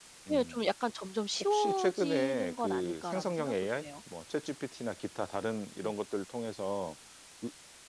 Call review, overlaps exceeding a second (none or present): present